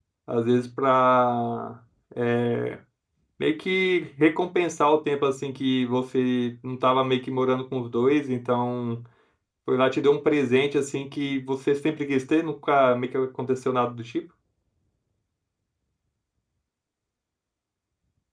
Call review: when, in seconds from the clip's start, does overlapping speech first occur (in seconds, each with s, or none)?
none